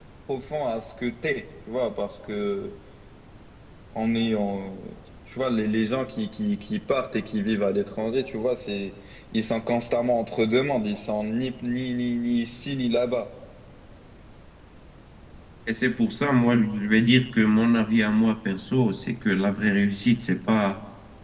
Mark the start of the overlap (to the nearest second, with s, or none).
none